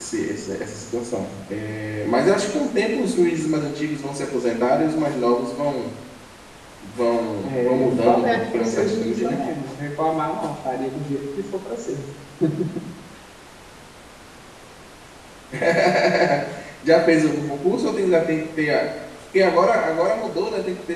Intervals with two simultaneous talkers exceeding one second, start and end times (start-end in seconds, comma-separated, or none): 7.4-9.4